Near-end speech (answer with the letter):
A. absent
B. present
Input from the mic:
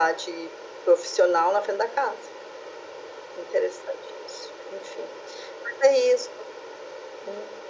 A